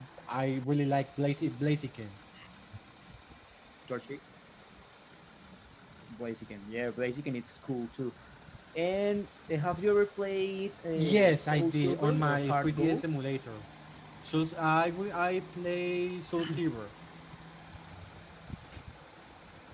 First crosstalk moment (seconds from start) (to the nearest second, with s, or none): 11 s